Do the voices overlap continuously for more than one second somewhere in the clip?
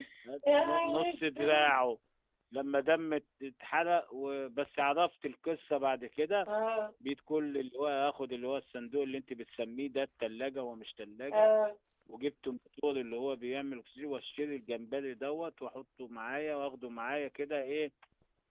Yes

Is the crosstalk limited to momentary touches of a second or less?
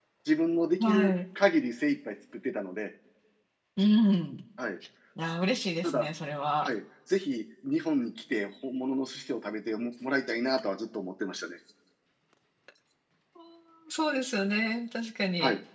Yes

